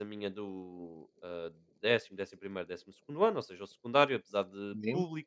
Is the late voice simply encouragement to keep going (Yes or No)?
Yes